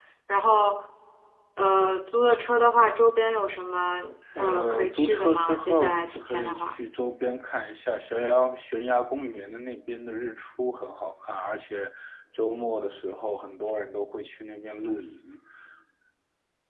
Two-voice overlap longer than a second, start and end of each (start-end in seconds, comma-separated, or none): 4.4-6.7